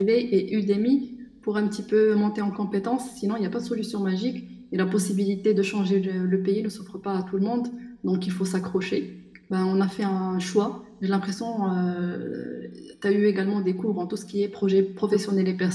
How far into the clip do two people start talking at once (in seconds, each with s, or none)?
none